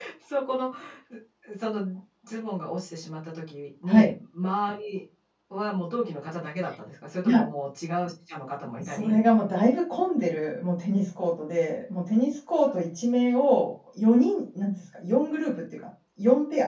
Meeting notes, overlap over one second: none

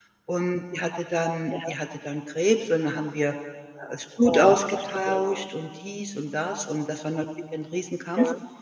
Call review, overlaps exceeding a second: present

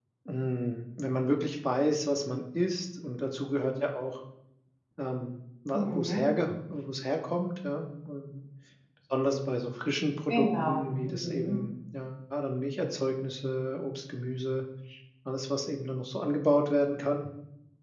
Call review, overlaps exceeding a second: present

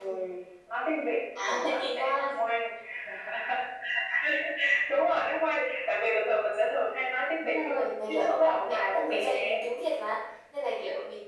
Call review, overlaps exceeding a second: present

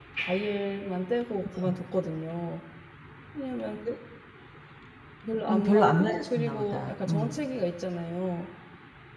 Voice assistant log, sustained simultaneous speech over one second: present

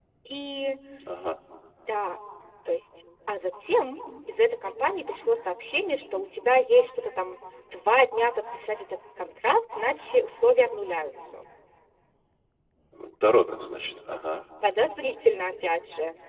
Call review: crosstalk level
none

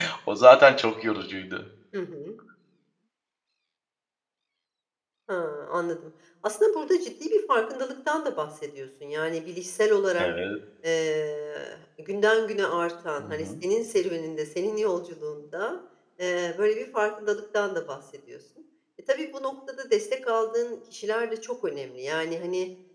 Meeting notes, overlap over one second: none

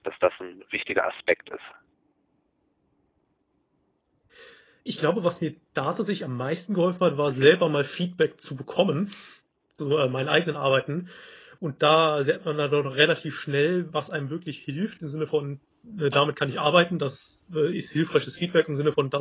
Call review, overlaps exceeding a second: none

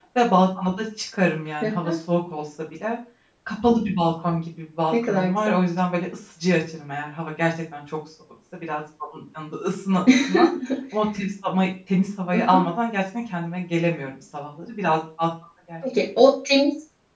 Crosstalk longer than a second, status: none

